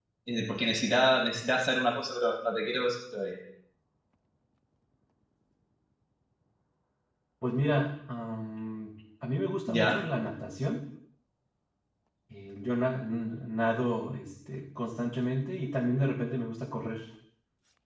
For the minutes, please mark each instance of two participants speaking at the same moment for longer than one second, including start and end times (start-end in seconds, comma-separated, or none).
none